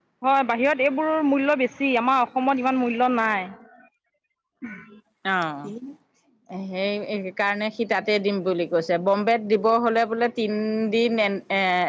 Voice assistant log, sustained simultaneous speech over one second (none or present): none